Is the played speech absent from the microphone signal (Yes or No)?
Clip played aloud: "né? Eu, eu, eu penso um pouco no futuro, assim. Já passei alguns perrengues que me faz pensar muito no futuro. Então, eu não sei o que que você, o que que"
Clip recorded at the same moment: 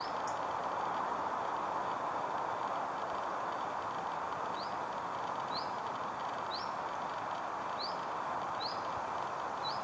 Yes